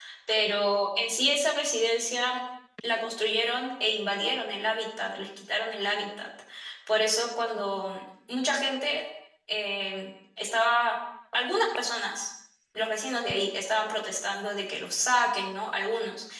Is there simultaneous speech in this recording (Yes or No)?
No